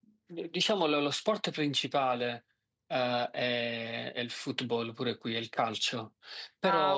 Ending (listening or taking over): listening